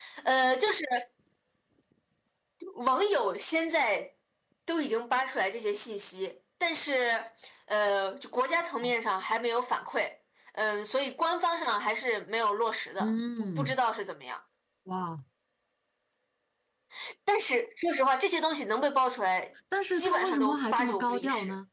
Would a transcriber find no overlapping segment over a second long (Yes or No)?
No